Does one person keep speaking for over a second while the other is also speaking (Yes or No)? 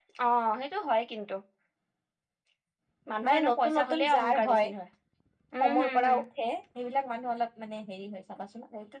Yes